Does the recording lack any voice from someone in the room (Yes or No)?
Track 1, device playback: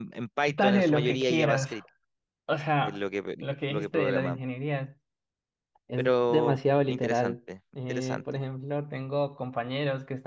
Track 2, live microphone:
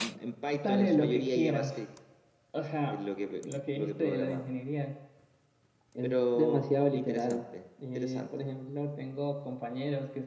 Yes